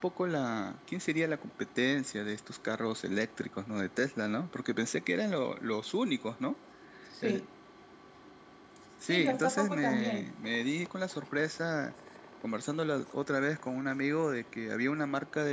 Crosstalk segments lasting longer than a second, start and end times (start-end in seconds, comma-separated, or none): 9.1-10.3